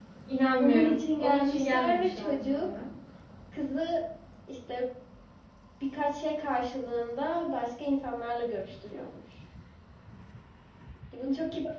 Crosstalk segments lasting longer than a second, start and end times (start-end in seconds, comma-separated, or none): 0.6-2.7